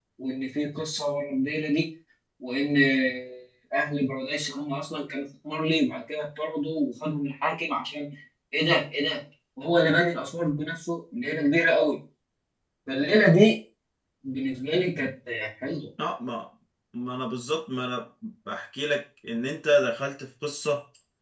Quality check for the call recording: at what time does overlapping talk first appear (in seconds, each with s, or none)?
none